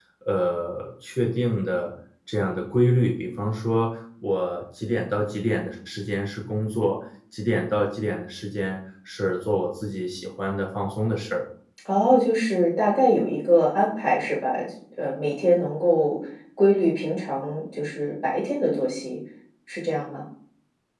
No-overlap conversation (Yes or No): Yes